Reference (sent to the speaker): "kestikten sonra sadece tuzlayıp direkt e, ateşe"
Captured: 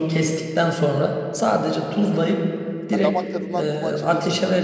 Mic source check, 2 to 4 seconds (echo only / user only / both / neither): both